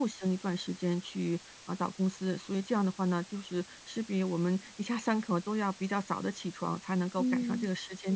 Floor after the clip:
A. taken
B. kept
A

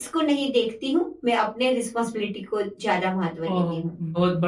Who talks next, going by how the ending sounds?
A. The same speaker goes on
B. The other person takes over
B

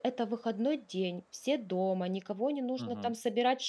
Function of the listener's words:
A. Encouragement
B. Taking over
A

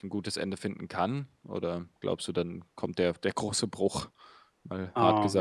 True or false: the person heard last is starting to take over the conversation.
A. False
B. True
B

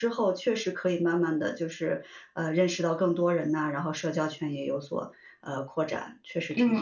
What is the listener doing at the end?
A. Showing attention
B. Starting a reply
B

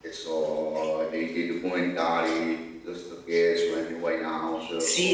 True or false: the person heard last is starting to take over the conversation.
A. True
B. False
A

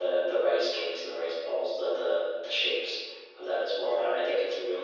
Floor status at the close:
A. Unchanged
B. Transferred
A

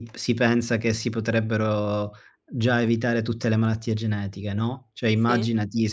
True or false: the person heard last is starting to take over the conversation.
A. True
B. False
B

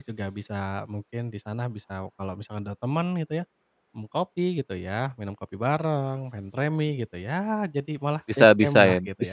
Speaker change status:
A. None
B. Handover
B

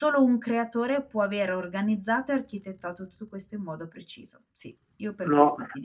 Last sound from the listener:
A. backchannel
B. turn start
B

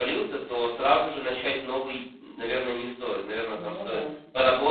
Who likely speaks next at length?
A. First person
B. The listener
A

